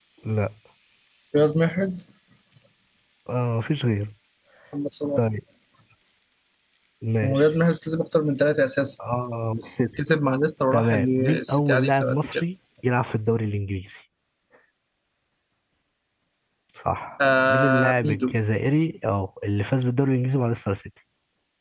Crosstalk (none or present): present